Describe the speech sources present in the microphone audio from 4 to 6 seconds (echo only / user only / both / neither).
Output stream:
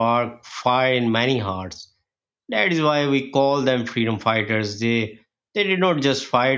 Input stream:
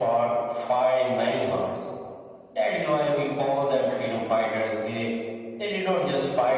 echo only